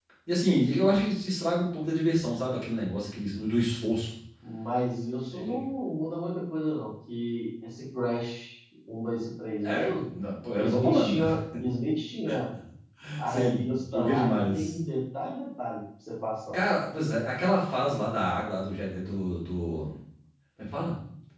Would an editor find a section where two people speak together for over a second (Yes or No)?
Yes